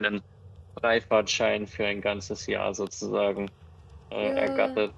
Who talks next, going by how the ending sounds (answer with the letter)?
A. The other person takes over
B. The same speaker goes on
A